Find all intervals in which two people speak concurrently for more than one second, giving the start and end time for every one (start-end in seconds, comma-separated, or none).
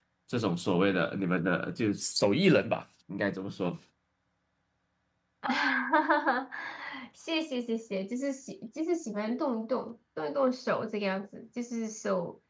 none